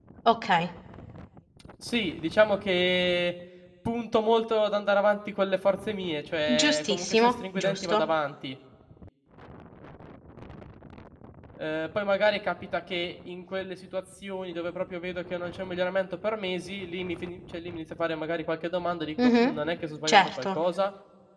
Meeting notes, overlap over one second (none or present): present